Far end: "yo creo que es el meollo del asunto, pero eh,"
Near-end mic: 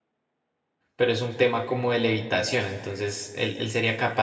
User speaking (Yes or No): Yes